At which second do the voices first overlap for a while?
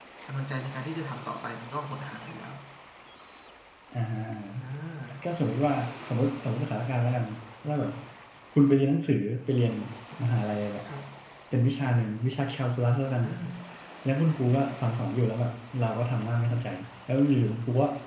none

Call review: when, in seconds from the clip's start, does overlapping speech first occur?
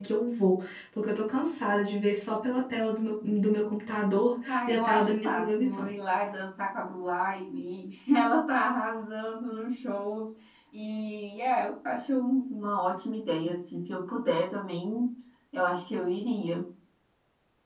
4.5 s

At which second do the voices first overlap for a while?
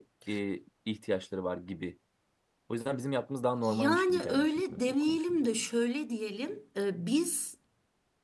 3.6 s

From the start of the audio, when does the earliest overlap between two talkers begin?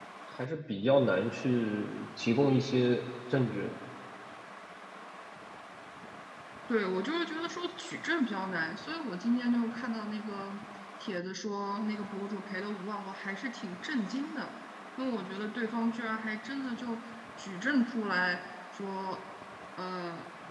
none

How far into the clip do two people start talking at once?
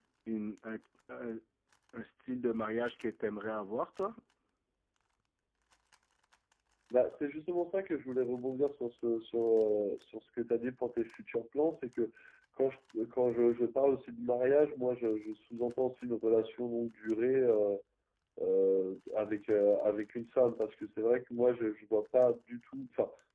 none

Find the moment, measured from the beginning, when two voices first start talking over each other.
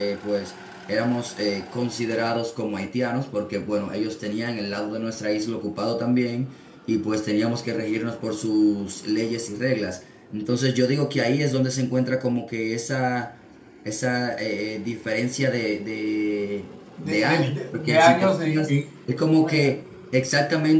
17.0 s

